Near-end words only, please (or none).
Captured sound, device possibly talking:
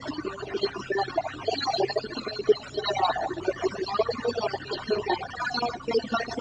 none